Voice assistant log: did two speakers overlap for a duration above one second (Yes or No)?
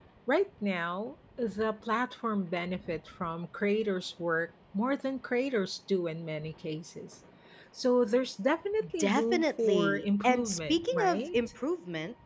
Yes